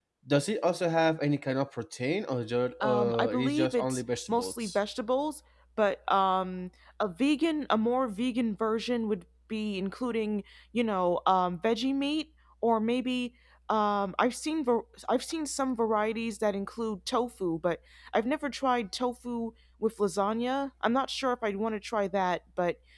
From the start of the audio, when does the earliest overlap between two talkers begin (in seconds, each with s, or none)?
2.8 s